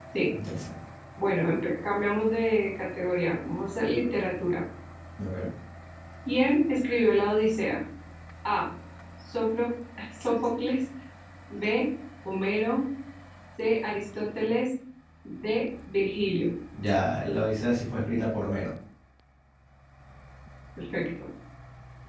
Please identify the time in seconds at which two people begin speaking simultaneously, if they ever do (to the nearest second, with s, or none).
none